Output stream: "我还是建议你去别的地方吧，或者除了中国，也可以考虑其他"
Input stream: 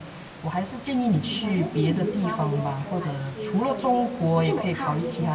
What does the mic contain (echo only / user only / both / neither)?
both